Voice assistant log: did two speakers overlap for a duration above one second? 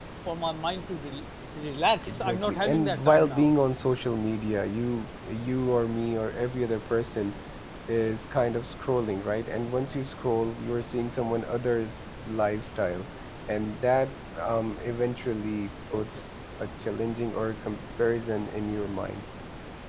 Yes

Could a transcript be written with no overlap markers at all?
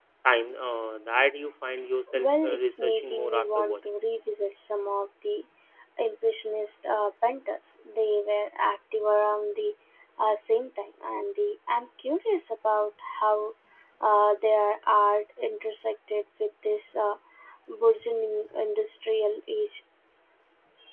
No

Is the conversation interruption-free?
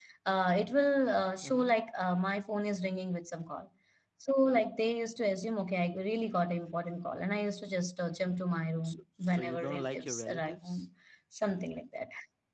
No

